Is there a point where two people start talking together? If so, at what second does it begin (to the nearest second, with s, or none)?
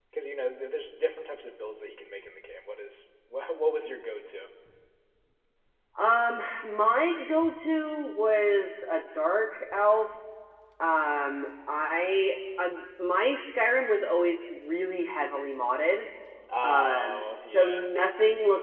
17 s